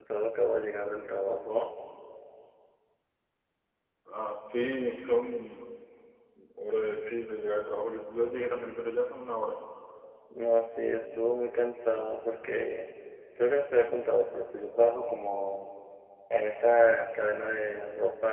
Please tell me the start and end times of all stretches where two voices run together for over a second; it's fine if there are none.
none

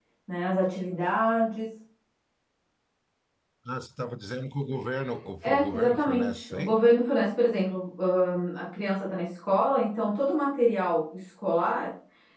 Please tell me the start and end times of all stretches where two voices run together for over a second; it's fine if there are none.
5.4-6.8

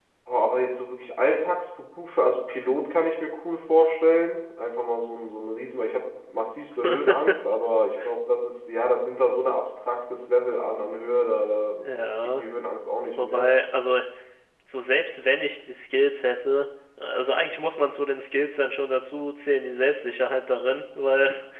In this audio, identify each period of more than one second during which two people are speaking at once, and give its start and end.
none

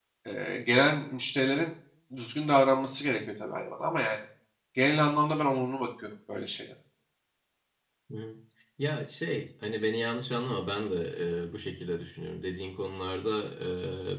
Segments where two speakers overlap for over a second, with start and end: none

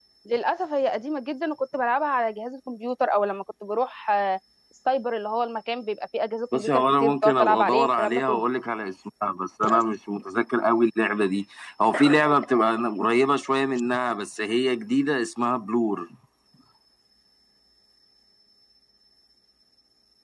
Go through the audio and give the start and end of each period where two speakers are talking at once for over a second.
6.5-8.4

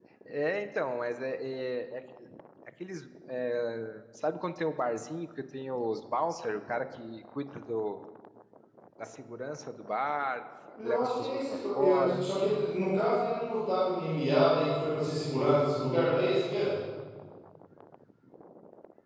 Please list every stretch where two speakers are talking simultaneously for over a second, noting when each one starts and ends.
10.8-12.2

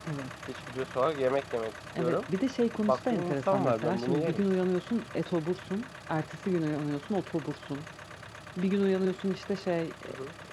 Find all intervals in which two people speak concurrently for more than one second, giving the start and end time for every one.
2.9-4.4

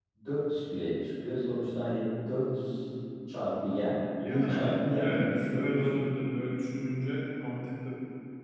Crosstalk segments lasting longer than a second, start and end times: 4.2-6.0

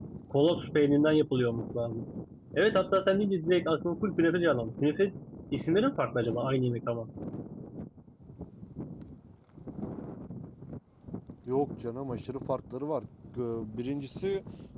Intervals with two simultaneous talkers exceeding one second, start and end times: none

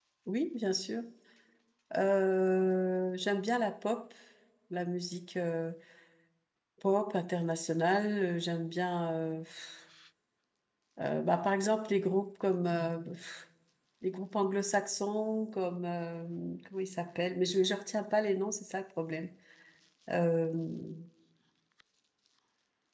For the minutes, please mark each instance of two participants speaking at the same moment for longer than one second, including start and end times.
none

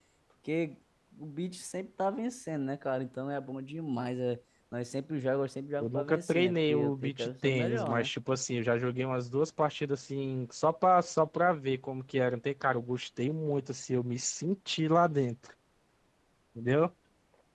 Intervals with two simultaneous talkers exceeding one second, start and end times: 5.8-8.1

